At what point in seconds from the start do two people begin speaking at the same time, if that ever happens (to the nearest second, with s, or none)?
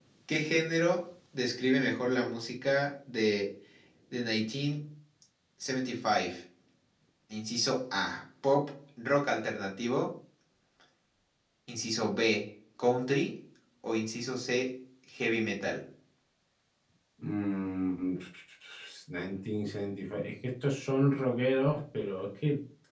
none